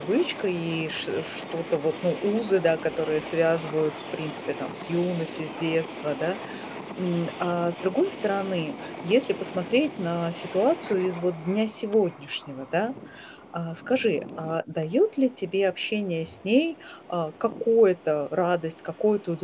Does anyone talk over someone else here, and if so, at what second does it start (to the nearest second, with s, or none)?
none